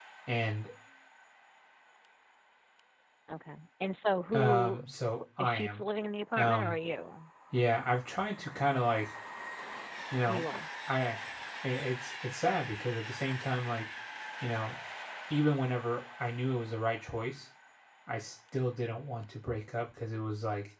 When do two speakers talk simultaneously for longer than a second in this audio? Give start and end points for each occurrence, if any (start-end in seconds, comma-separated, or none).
none